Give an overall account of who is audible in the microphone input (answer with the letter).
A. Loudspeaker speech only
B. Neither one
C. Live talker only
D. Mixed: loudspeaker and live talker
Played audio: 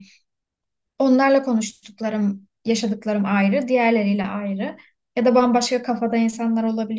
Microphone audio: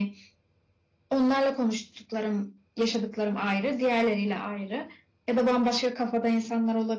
A